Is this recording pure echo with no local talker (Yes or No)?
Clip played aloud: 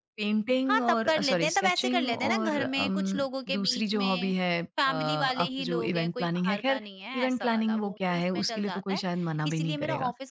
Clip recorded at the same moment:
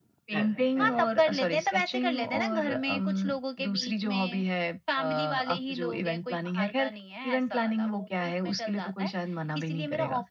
No